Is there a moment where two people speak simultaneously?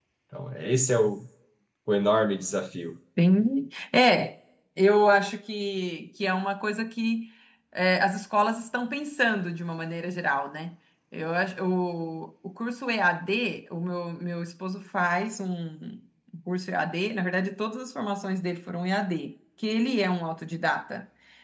No

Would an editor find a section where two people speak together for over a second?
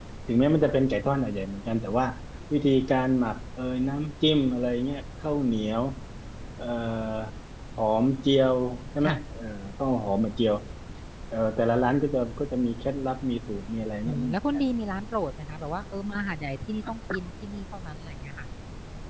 No

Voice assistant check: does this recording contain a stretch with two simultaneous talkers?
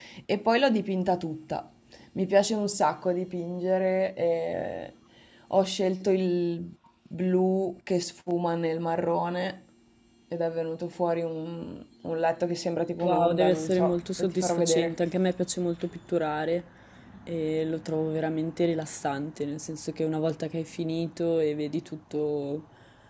Yes, from 13.0 s

